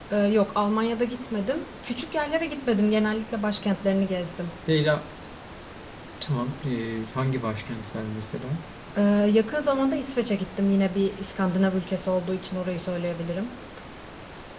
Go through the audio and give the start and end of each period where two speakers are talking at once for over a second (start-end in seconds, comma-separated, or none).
none